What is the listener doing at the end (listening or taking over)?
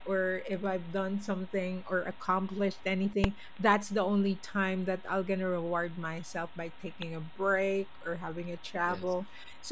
listening